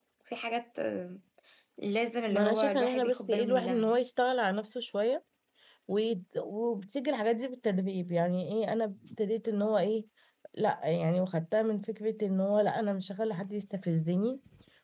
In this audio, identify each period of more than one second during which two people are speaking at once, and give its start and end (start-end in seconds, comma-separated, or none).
2.3-3.9